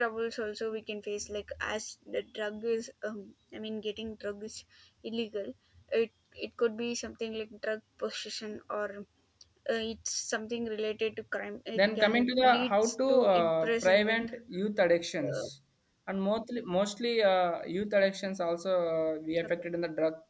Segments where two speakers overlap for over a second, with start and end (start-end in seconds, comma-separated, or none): 11.8-14.3